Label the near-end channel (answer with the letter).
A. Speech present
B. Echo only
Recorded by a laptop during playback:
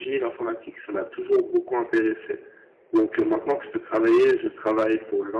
A